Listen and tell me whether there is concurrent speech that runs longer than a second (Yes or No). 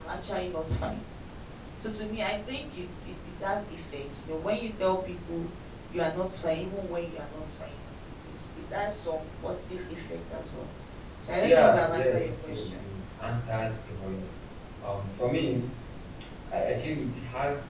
Yes